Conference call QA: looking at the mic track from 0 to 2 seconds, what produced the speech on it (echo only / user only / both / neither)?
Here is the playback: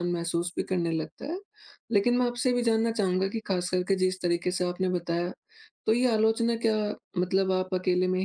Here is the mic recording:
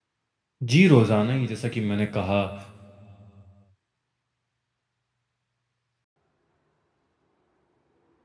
user only